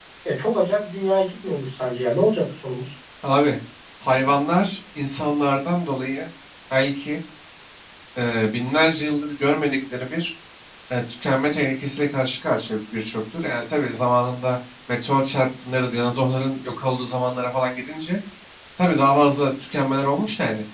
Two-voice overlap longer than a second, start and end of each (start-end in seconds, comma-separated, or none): none